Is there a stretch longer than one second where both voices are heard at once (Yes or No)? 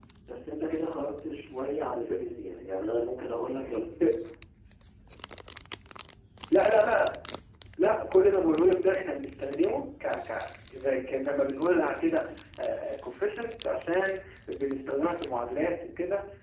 No